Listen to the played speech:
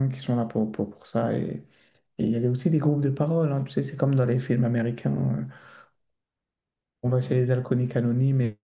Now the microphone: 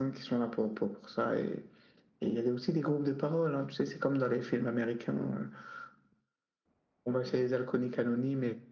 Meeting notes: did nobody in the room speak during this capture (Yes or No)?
Yes